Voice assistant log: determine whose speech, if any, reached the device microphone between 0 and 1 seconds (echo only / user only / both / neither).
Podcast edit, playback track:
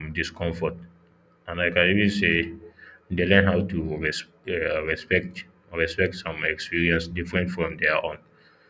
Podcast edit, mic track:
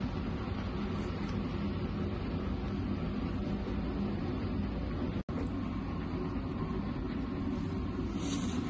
neither